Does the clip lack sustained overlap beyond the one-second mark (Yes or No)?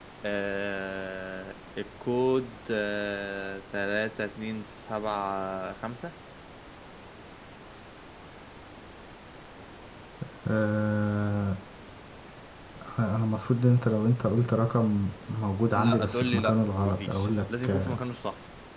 No